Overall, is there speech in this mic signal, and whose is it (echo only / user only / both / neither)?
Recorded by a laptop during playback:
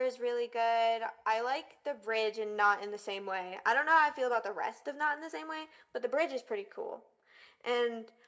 echo only